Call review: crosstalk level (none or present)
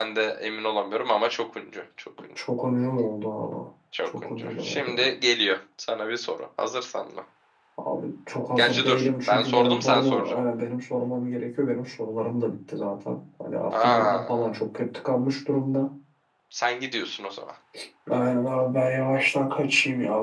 present